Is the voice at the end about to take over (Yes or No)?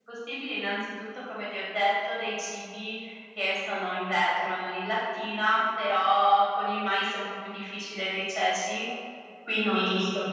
No